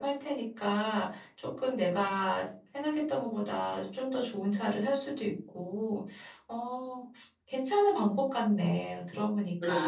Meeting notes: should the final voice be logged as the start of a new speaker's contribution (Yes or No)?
Yes